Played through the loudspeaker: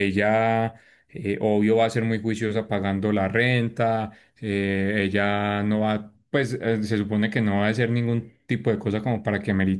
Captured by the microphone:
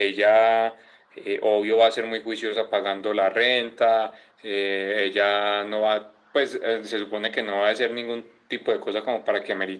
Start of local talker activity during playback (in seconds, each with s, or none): none